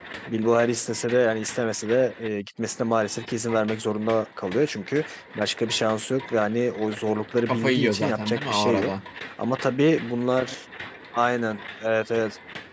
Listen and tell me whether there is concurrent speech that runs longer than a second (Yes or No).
Yes